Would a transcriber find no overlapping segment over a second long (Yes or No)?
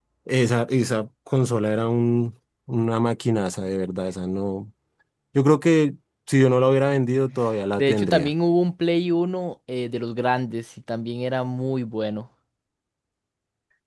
Yes